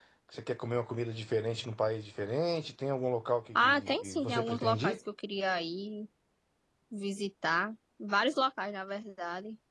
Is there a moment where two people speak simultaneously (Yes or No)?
Yes